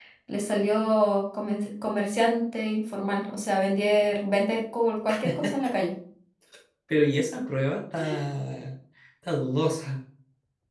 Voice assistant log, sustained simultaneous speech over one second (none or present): none